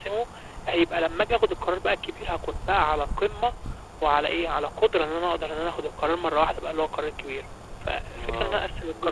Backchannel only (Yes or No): No